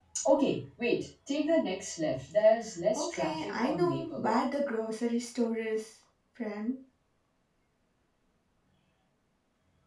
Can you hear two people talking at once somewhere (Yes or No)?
Yes